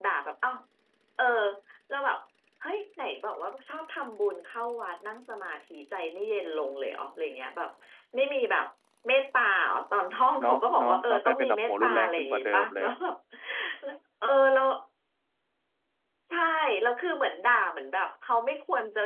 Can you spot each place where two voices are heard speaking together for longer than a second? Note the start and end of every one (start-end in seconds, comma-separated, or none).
10.4-12.9